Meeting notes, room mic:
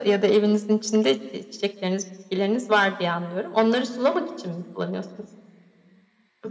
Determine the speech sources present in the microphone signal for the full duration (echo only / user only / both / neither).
echo only